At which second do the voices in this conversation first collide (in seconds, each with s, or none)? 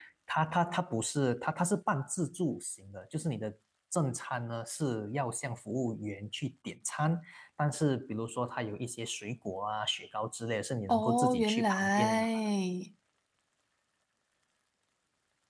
10.9 s